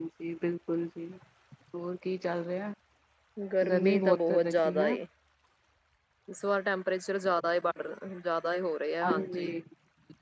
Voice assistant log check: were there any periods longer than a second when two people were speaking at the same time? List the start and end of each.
3.7-5.0

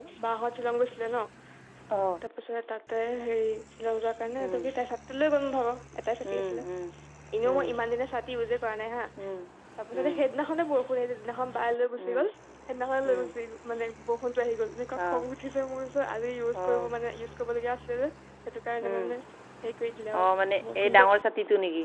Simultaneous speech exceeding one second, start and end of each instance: none

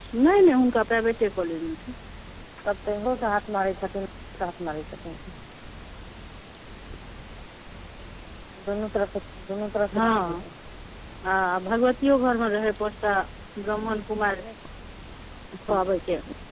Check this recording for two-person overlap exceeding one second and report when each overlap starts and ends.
none

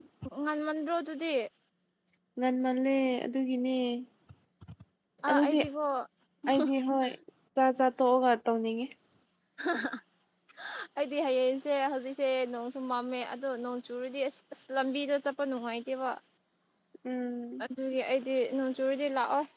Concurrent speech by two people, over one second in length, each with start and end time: none

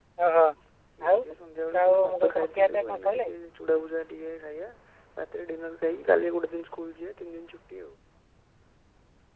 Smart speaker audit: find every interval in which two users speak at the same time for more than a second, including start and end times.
1.8-3.3

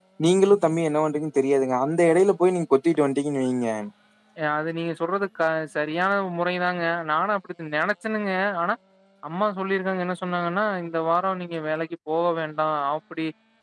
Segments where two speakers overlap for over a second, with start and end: none

